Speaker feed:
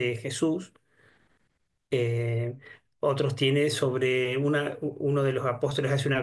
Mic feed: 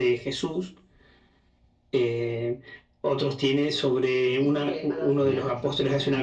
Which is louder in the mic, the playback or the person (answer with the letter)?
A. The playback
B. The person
A